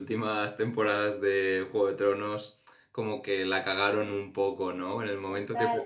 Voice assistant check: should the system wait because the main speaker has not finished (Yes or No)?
No